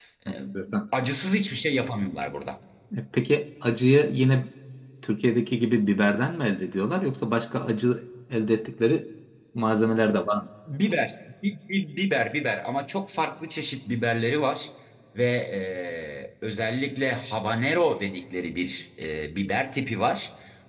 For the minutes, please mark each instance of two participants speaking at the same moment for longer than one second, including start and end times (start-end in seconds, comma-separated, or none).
none